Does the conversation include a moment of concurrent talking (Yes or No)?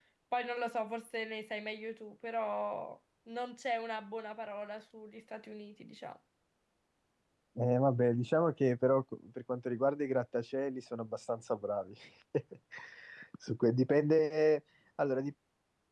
No